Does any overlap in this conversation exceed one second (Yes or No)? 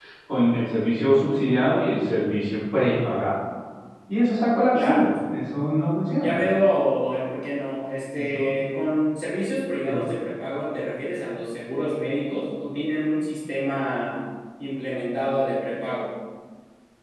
No